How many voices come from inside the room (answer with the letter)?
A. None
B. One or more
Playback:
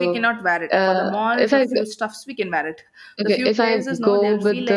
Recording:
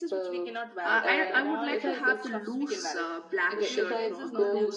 B